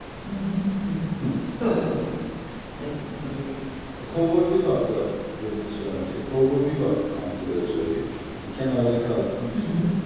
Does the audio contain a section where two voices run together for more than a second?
No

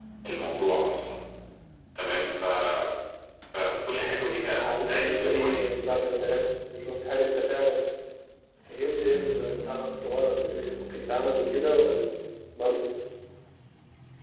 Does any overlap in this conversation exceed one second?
Yes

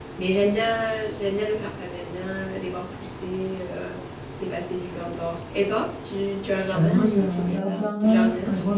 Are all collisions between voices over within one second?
No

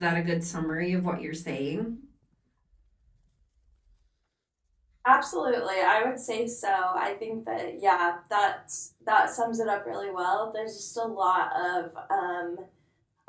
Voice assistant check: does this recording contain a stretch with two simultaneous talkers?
No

